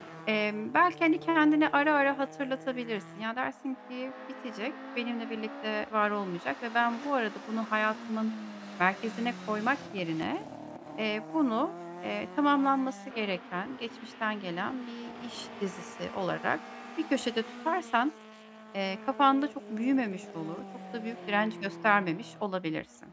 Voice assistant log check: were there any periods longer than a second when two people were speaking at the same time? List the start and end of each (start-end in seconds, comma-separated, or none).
none